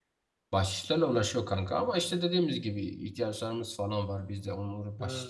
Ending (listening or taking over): listening